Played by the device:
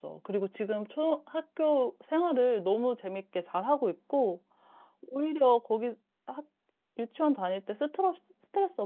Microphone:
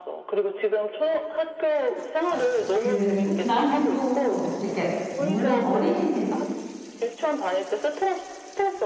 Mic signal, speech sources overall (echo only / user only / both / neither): both